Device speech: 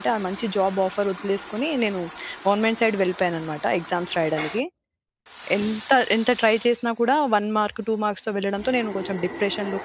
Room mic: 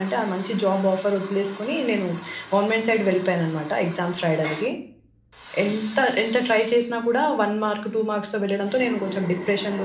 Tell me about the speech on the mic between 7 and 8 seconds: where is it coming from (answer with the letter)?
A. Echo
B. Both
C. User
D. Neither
A